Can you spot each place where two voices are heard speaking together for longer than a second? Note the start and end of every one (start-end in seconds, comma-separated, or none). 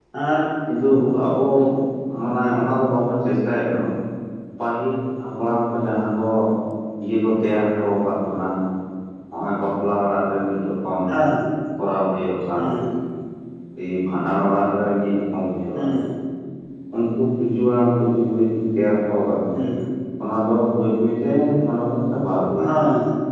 none